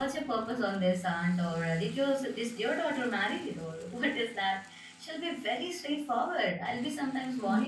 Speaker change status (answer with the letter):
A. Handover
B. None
B